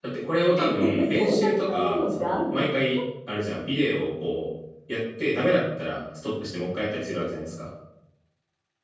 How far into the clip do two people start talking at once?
0.6 s

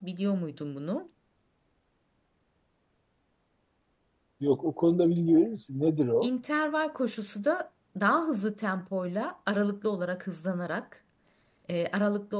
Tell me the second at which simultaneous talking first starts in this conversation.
none

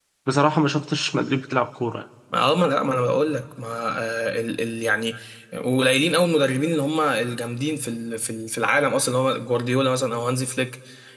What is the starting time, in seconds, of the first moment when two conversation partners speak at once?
none

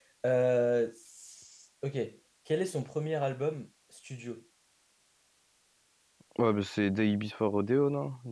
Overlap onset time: none

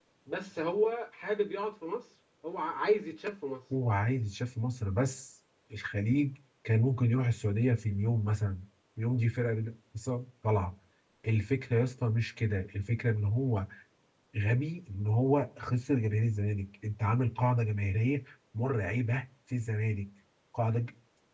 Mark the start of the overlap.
none

